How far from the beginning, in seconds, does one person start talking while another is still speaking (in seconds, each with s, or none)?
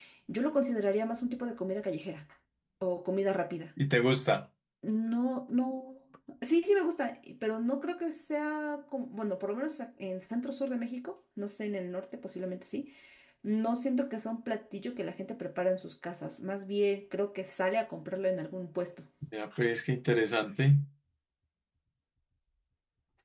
none